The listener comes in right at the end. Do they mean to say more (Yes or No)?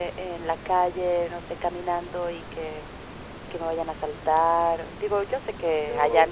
No